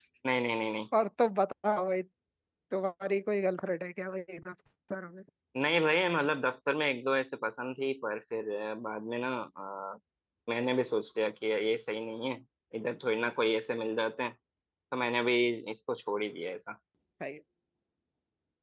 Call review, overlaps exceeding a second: none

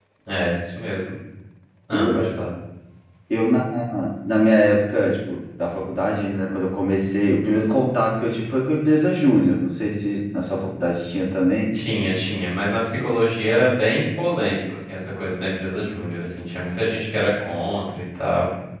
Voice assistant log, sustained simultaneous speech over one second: none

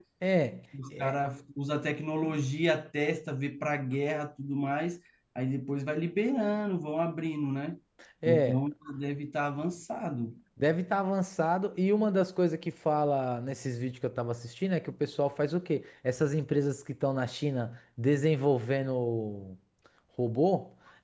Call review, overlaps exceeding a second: none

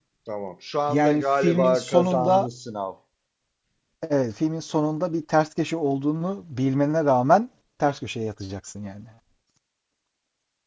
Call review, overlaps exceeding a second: present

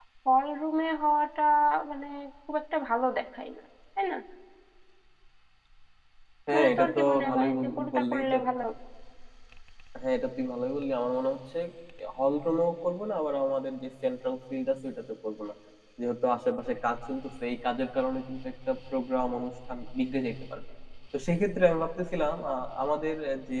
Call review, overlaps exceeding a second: present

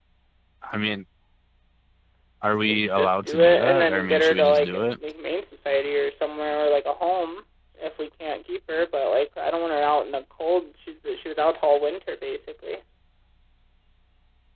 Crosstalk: present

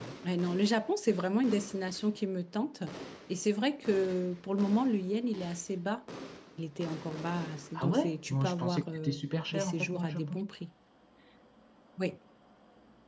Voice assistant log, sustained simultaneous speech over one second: present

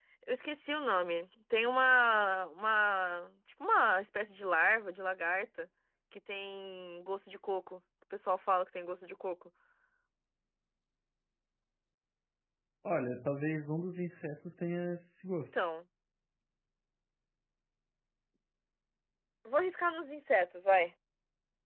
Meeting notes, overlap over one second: none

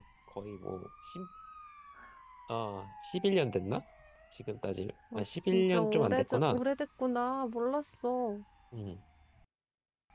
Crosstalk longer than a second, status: present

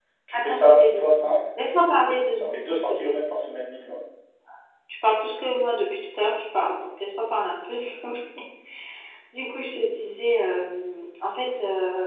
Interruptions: present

